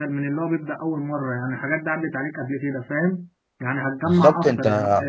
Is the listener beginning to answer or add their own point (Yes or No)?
No